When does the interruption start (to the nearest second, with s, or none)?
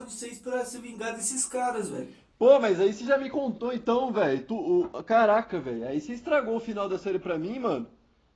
none